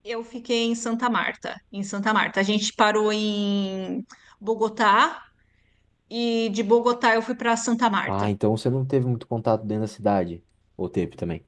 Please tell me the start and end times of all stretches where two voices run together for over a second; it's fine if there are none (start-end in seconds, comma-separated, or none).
none